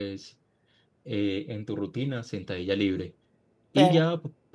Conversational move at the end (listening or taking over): listening